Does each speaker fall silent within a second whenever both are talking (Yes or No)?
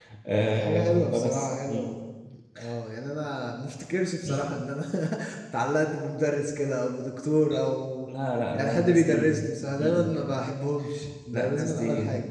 No